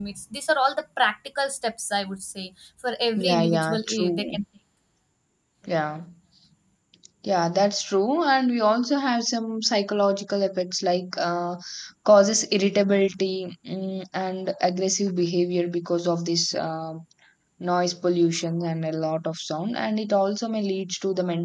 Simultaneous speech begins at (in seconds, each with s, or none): 3.2 s